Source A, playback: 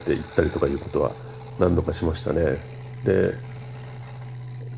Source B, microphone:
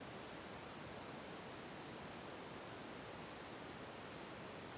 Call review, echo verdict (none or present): none